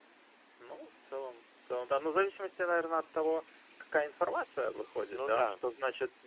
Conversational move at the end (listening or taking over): listening